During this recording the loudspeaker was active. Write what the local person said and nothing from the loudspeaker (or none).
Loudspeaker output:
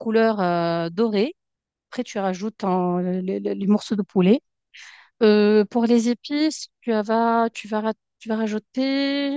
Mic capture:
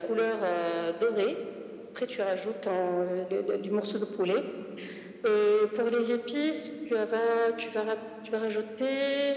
none